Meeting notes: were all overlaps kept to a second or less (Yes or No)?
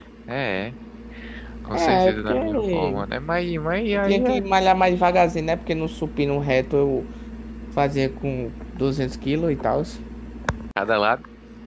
No